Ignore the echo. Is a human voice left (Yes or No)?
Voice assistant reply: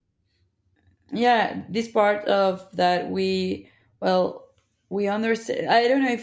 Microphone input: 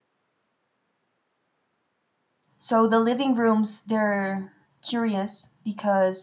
Yes